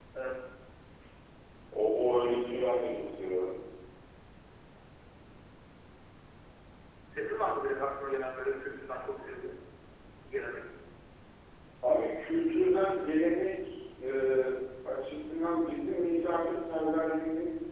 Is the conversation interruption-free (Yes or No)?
Yes